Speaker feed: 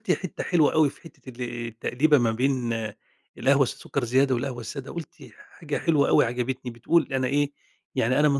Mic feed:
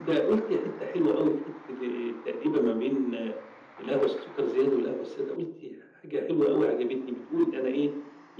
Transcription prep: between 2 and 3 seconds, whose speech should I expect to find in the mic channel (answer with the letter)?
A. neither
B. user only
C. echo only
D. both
C